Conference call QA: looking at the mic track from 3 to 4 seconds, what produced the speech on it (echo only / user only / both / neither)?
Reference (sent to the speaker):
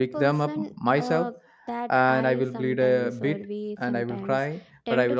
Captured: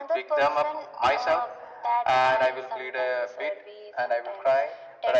echo only